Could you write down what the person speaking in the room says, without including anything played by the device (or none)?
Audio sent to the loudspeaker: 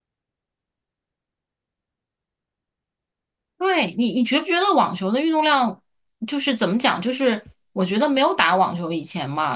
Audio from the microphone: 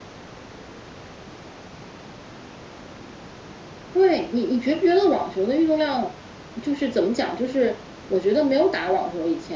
none